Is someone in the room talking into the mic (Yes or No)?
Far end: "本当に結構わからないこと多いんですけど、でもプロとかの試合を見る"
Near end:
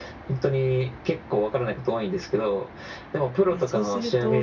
Yes